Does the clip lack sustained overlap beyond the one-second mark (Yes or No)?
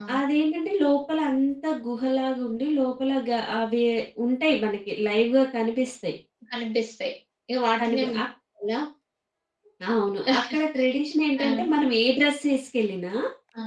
Yes